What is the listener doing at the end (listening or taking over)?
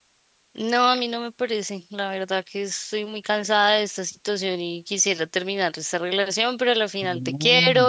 listening